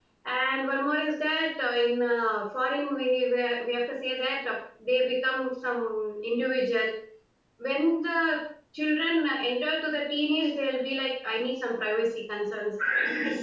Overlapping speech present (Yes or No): No